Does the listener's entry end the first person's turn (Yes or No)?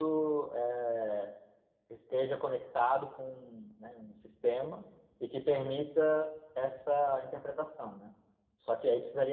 No